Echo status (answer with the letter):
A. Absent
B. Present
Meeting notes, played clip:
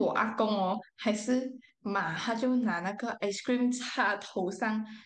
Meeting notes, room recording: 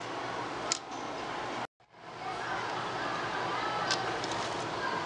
A